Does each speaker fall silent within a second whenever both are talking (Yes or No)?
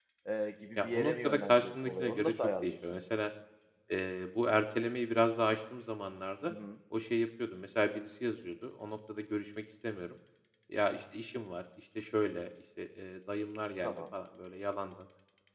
No